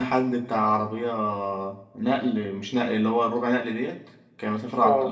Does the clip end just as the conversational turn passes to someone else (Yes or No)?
No